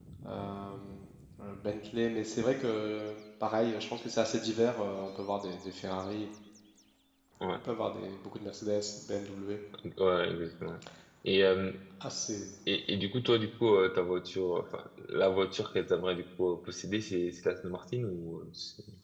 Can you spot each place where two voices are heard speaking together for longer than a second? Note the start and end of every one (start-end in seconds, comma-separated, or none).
none